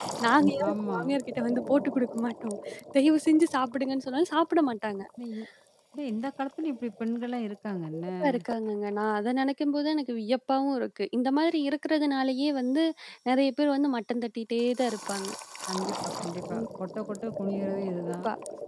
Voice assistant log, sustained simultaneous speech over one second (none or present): none